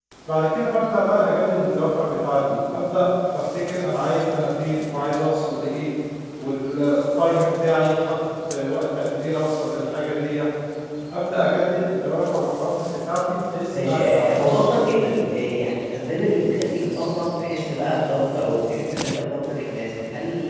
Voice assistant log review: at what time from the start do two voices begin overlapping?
13.7 s

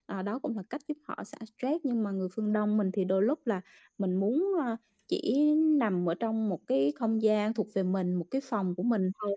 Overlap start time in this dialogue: none

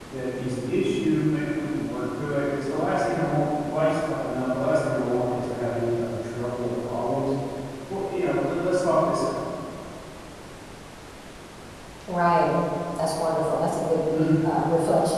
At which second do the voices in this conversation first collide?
none

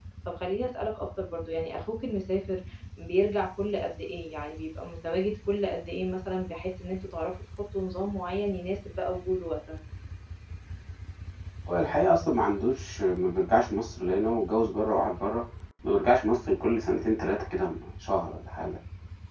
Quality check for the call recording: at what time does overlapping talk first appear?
none

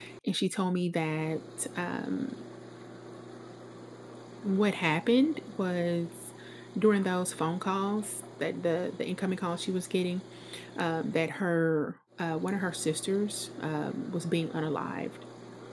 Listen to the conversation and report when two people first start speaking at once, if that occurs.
none

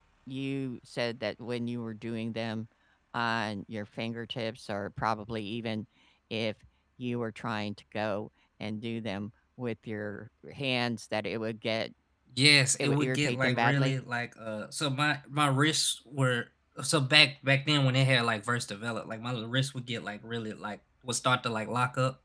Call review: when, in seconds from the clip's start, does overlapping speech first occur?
12.8 s

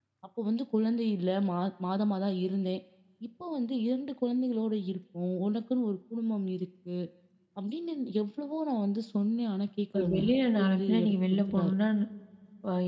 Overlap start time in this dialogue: 9.9 s

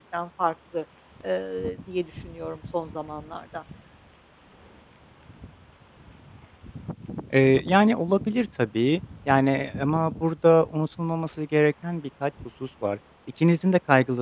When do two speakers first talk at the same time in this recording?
none

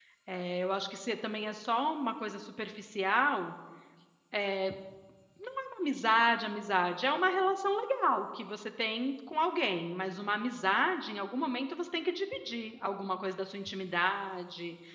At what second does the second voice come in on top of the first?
none

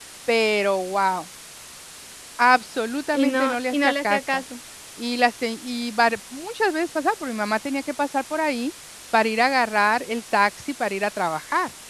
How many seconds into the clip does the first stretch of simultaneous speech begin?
3.1 s

